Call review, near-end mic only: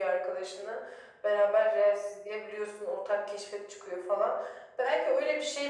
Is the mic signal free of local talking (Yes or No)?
Yes